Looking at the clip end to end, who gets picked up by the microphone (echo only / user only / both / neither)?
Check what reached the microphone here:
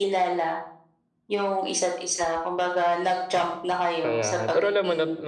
both